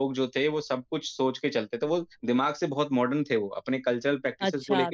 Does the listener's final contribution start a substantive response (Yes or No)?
Yes